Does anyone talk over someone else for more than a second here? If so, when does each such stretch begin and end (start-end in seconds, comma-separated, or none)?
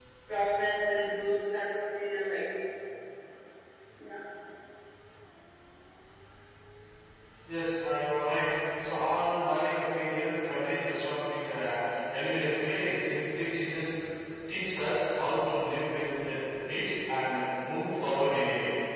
none